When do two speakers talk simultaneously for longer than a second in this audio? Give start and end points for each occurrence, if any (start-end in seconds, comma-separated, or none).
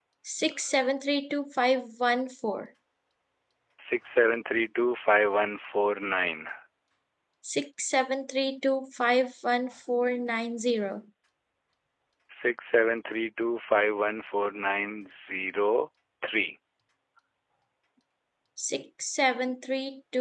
none